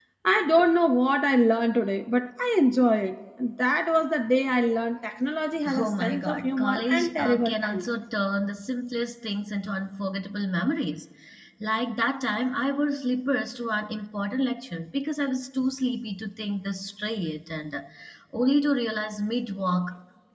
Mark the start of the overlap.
6 s

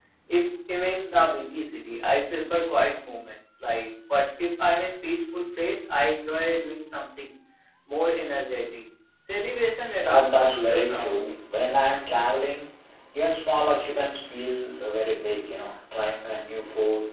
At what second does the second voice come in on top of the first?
10 s

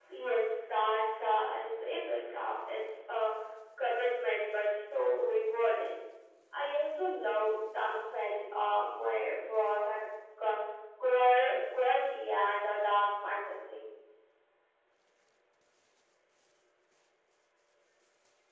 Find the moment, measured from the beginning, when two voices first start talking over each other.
none

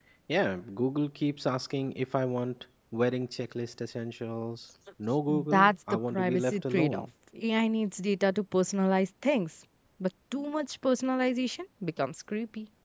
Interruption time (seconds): 5 s

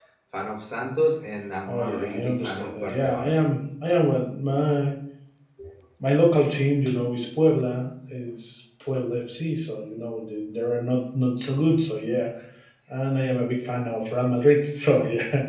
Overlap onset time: 2 s

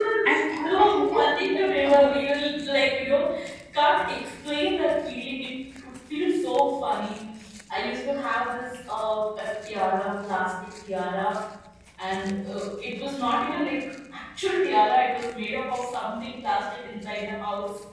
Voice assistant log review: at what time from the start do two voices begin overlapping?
1 s

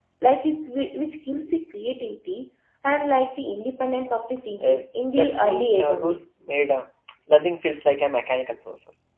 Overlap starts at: 5 s

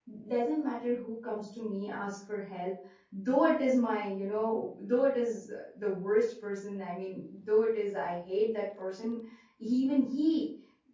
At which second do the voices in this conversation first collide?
none

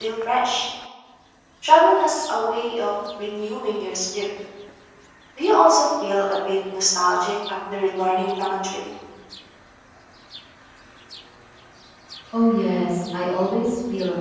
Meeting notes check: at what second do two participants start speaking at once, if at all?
none

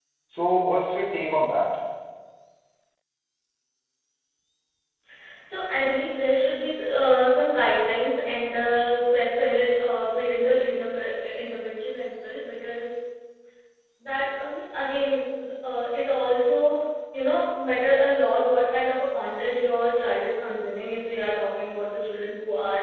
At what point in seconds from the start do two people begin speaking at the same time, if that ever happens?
none

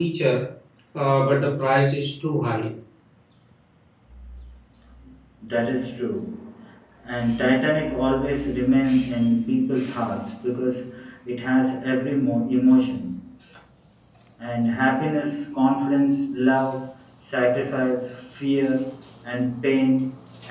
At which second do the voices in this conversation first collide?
none

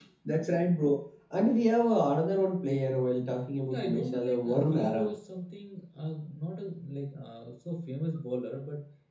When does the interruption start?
4 s

